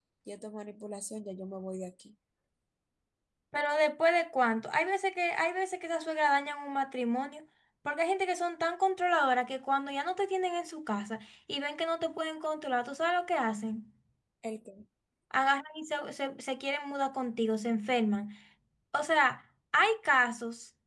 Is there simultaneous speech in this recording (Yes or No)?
No